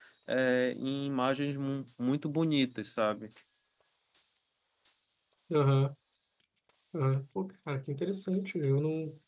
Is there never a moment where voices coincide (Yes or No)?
Yes